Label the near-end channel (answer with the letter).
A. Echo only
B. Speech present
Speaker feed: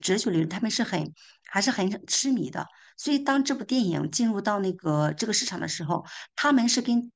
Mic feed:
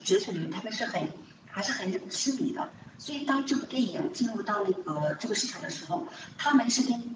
A